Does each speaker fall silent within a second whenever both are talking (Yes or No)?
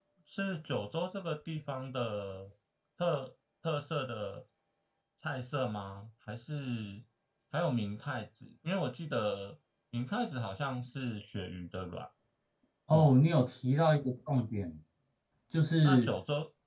Yes